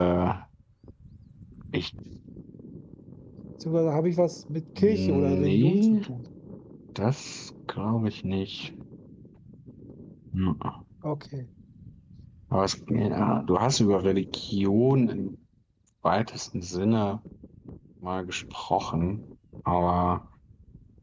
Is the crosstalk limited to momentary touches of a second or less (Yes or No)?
No